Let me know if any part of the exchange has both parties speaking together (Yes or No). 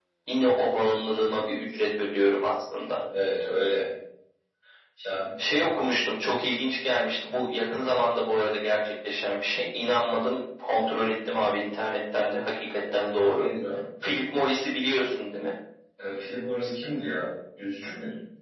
No